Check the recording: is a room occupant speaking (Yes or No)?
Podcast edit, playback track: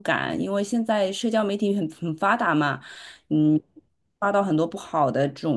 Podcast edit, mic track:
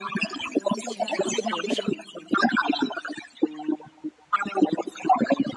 Yes